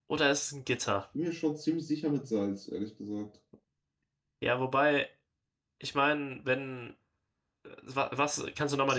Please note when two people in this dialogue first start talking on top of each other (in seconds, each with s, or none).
none